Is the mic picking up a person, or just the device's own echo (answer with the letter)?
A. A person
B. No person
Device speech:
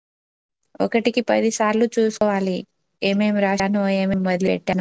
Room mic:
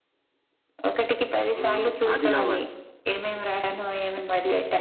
A